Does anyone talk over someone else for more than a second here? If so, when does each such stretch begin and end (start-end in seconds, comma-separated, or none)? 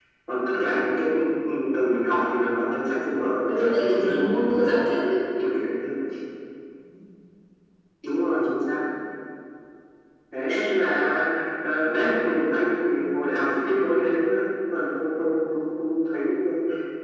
3.6-5.0